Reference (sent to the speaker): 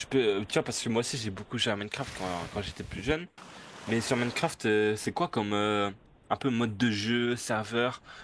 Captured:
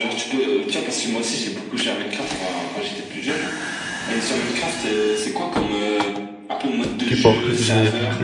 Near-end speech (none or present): present